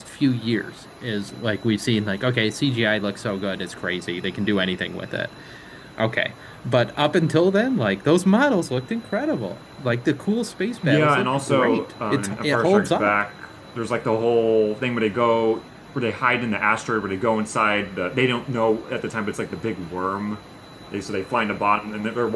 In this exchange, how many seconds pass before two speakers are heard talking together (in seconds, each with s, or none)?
10.8 s